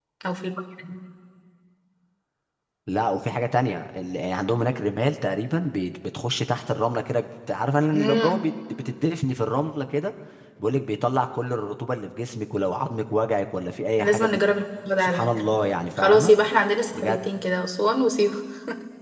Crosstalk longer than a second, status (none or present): none